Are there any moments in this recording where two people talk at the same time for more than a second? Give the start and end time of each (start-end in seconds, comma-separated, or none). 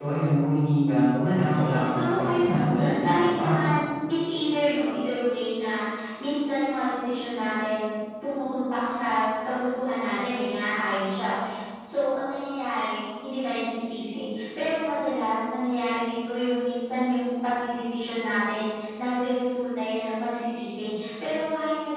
1.5-3.7